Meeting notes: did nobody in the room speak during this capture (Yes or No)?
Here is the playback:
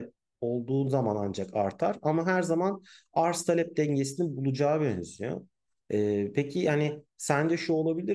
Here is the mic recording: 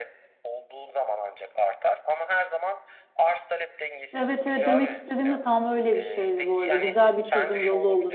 No